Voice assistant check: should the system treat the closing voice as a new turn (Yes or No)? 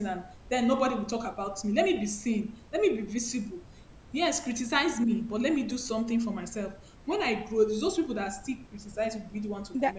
Yes